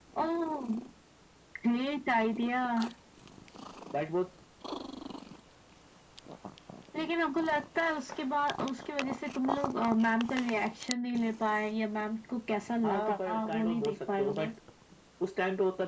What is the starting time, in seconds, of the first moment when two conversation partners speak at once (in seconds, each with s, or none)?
12.8 s